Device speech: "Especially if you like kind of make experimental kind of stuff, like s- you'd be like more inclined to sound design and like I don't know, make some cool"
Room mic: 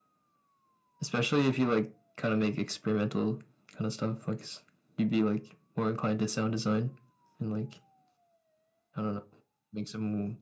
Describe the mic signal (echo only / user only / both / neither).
echo only